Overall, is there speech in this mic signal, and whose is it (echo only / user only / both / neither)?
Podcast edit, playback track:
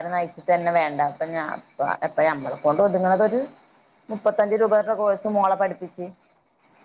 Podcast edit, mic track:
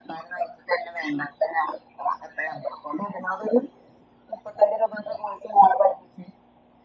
echo only